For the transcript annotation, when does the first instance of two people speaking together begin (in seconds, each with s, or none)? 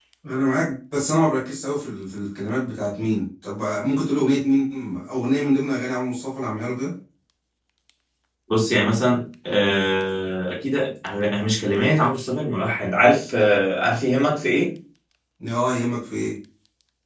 none